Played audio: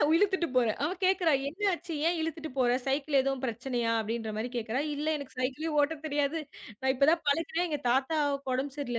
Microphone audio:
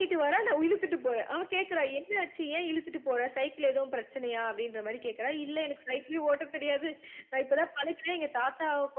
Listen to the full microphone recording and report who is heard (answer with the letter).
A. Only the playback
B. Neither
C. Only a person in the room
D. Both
A